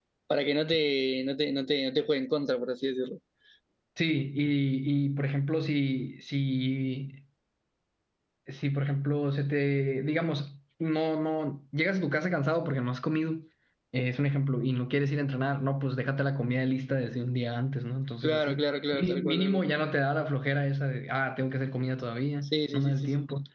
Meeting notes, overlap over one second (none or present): present